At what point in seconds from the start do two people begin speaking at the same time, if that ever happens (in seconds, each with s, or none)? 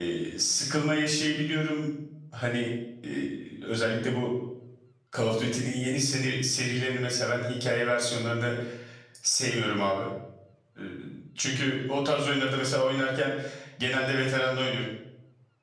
none